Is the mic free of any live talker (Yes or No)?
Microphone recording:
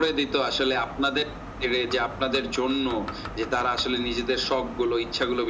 Yes